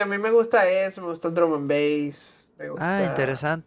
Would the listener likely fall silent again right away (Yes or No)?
No